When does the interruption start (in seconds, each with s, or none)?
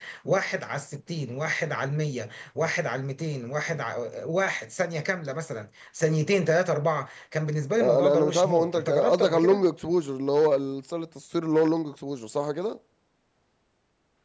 7.8 s